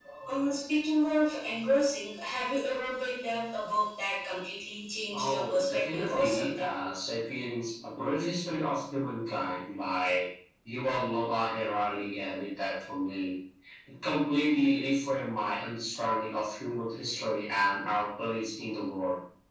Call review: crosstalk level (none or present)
present